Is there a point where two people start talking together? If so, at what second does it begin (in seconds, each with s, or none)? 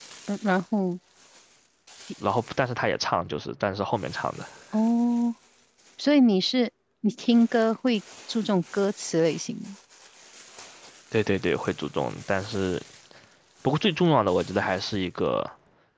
none